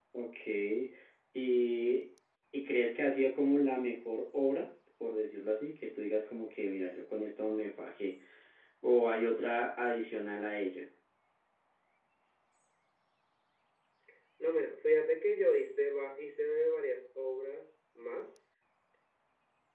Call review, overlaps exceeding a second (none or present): none